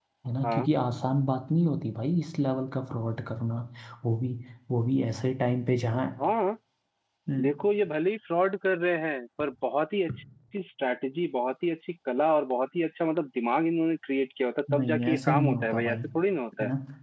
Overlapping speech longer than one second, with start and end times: 14.8-16.0

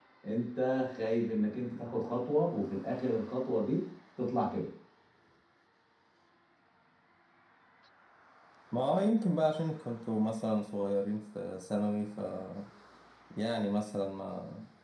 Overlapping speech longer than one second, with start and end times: none

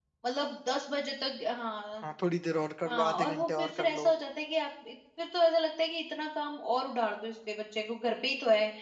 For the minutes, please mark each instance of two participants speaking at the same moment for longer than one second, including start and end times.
2.9-4.1

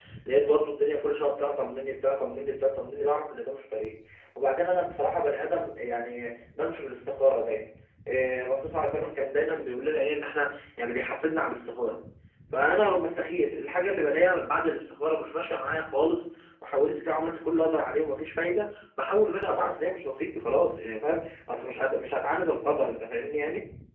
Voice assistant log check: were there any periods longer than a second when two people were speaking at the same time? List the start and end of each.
none

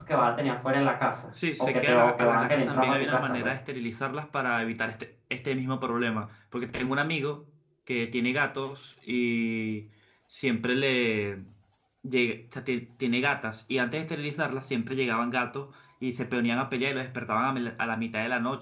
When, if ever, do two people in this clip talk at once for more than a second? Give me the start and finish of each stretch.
1.6-3.5

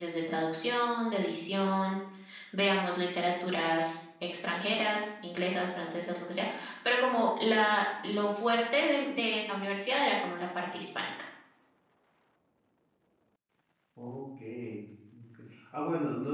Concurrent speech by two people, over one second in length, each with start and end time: none

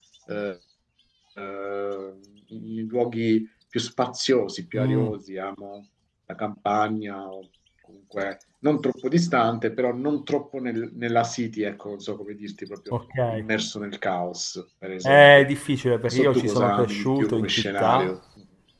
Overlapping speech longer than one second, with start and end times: 16.1-18.1

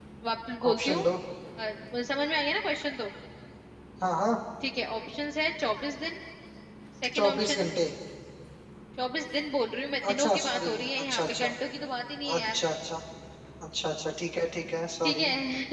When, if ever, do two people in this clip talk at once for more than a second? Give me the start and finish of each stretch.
10.1-11.5

